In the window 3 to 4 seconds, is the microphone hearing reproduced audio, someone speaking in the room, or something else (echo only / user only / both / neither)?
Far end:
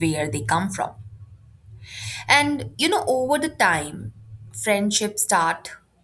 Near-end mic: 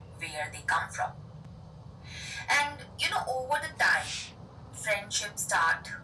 echo only